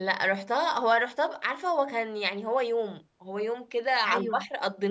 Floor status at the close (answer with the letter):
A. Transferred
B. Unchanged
B